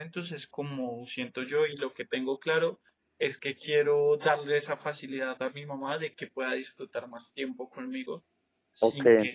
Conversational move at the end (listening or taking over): taking over